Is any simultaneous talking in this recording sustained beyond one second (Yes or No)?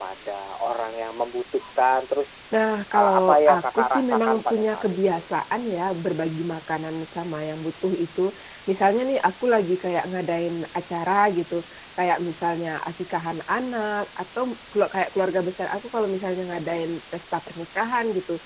Yes